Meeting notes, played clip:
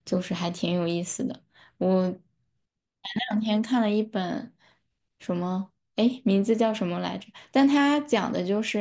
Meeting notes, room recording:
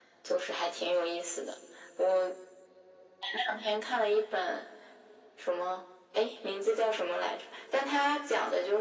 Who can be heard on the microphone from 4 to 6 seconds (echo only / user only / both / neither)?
echo only